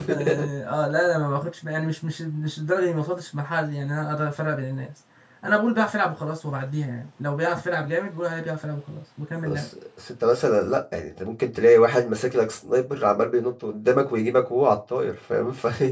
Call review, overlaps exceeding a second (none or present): none